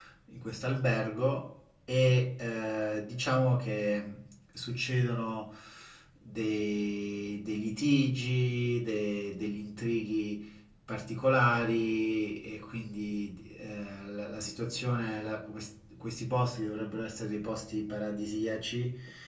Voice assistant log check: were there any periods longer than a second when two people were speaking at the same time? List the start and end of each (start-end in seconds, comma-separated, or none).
none